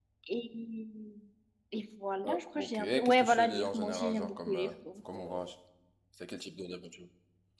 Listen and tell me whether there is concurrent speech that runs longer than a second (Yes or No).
Yes